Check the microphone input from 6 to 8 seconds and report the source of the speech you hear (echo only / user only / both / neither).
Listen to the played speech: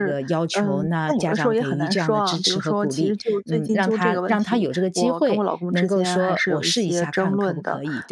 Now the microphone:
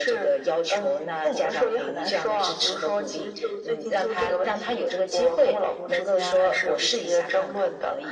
echo only